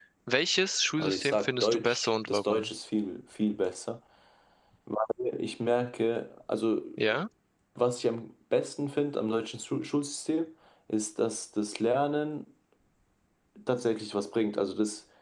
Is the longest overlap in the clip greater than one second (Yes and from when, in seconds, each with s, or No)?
Yes, from 1.0 s